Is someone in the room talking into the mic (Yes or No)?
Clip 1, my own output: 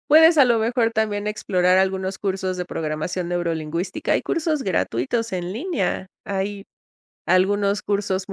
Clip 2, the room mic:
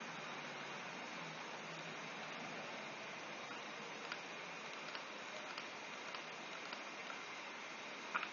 No